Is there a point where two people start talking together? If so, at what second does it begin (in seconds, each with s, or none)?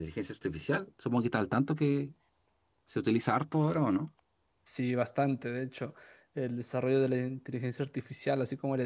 none